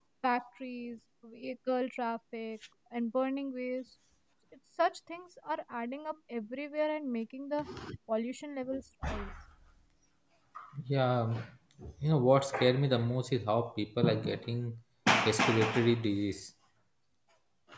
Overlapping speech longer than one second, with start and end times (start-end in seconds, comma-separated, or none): none